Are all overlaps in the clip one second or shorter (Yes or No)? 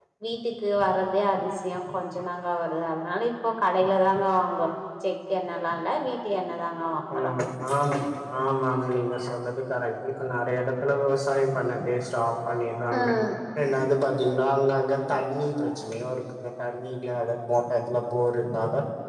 Yes